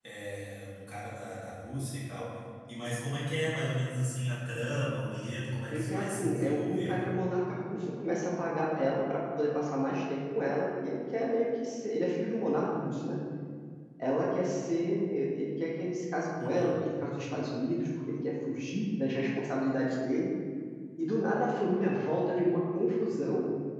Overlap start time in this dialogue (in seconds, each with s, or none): 5.7 s